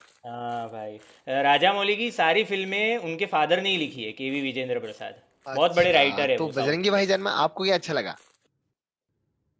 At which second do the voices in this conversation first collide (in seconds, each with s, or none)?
5.5 s